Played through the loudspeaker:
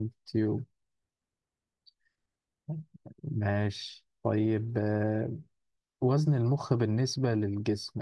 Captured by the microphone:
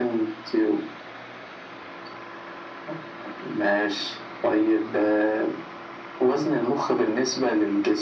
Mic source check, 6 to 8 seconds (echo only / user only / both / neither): echo only